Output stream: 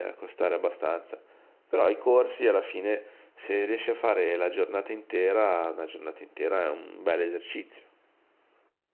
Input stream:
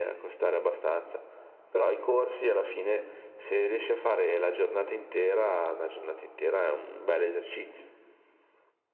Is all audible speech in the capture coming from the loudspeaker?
Yes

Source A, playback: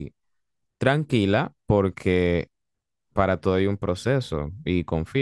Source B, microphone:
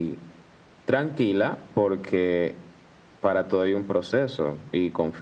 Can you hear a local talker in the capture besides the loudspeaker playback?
No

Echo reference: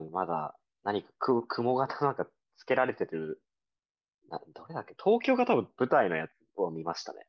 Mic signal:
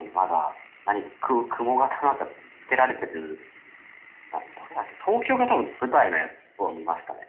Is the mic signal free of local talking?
Yes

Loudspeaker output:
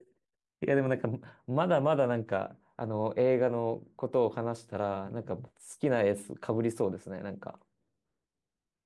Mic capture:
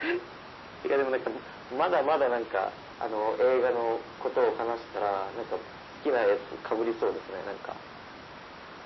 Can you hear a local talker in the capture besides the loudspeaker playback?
No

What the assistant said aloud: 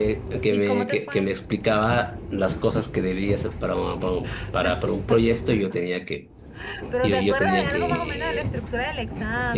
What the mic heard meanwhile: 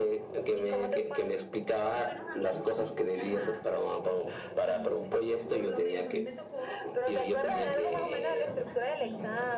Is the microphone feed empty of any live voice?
No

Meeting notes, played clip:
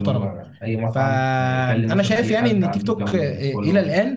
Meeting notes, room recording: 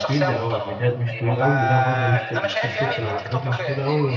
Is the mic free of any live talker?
No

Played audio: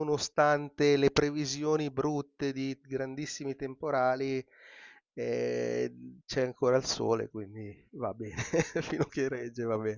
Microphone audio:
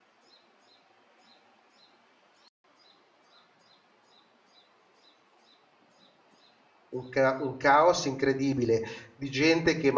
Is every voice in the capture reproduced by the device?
No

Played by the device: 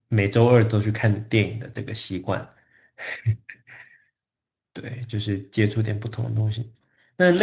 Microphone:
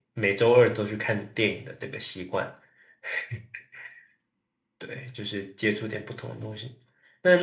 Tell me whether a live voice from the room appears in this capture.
No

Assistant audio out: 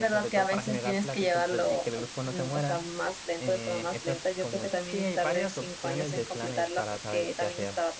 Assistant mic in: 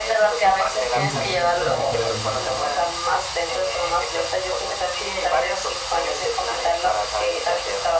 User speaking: Yes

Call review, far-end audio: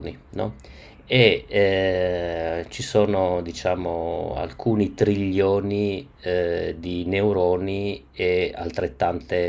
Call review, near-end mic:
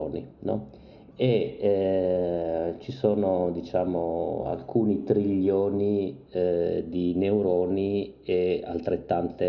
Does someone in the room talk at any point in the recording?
No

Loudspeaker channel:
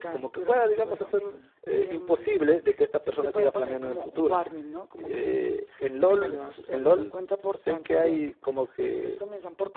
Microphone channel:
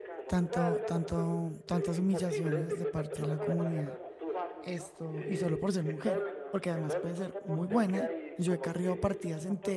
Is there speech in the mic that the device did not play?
Yes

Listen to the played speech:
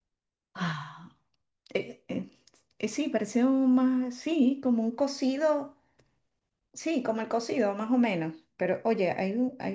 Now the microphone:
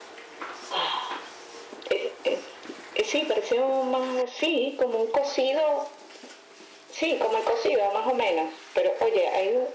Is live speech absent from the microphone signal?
Yes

